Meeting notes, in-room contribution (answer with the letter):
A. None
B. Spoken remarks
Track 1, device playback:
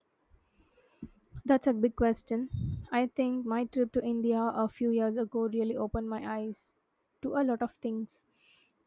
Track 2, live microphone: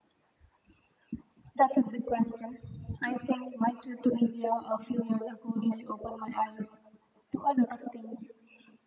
A